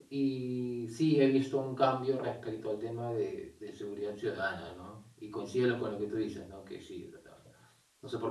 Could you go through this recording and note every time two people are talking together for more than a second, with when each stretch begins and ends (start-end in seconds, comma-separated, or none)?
none